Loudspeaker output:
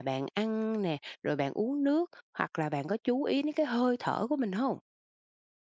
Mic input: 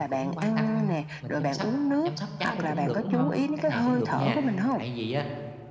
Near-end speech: present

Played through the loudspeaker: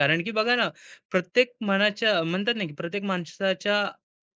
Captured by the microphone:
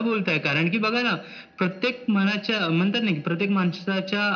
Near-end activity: none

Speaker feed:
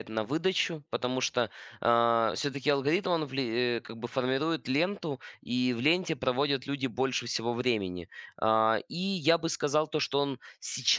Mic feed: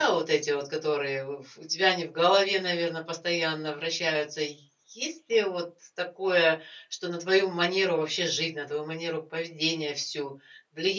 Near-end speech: present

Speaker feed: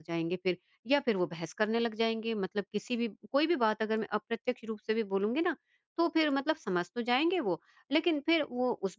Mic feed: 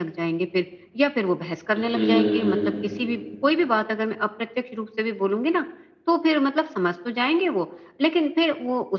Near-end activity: present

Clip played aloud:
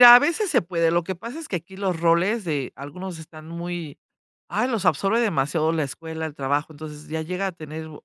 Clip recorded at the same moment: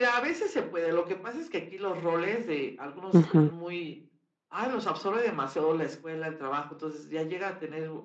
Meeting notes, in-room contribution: present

